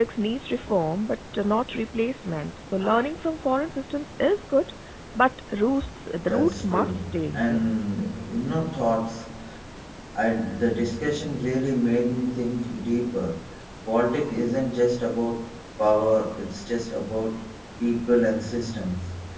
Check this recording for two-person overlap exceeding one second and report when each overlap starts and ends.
6.3-7.7

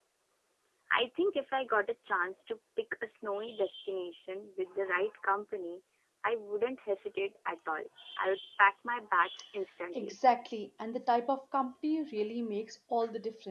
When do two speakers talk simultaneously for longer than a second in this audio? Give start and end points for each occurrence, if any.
none

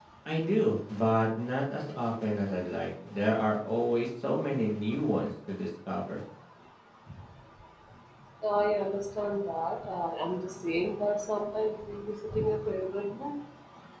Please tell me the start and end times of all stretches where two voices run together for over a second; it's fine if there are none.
none

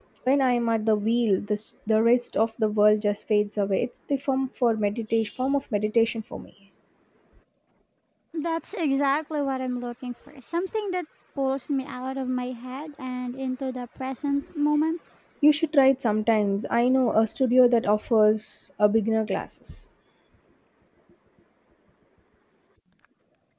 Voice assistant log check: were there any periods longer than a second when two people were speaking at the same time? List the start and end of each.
none

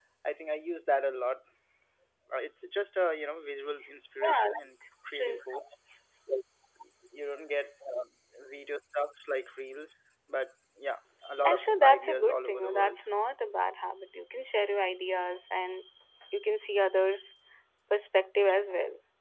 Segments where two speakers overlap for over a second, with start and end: 11.4-13.0

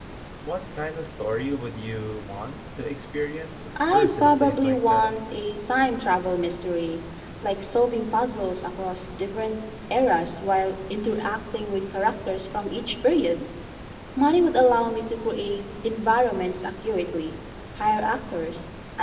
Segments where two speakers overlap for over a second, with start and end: 3.9-5.2

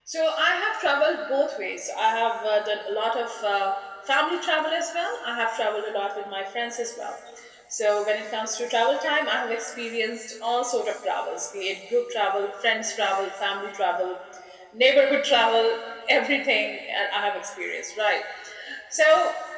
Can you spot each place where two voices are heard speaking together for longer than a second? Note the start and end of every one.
none

